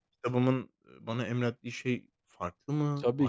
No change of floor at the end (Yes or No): No